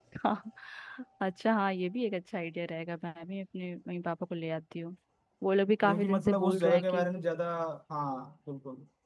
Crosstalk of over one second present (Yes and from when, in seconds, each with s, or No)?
Yes, from 5.8 s